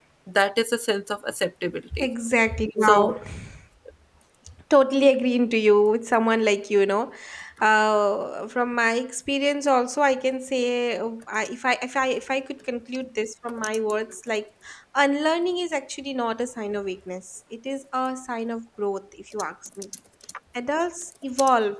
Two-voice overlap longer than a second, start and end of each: none

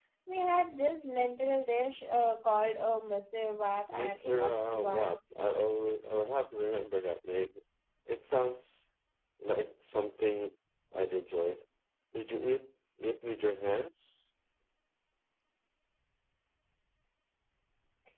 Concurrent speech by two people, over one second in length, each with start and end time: 3.9-5.2

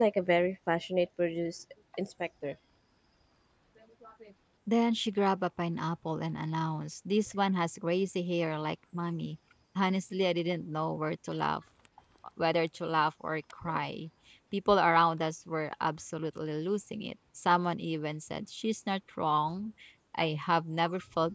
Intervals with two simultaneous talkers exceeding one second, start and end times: none

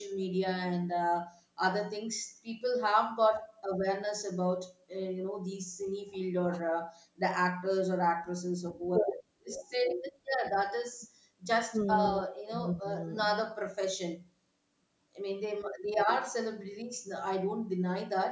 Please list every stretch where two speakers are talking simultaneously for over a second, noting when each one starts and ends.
11.7-13.4

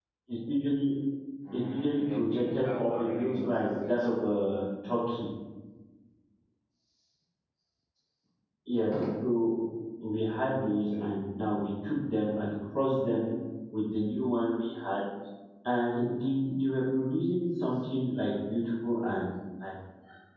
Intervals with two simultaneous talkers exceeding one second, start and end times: 1.5-4.1

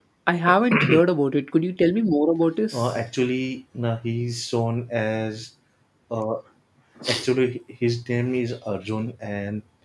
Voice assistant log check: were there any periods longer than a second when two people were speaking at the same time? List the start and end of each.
none

